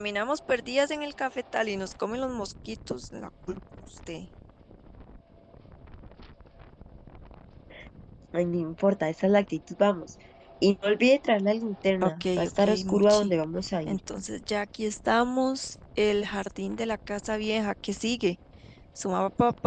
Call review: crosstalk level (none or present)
present